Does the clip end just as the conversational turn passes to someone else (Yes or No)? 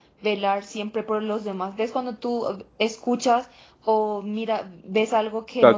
Yes